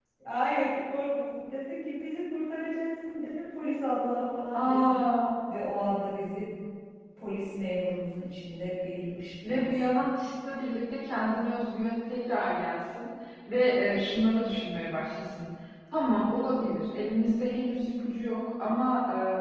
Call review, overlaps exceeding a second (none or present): none